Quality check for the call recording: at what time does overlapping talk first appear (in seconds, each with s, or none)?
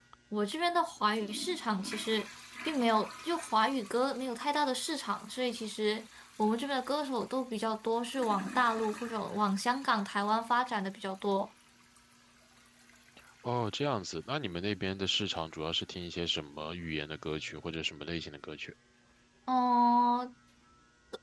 none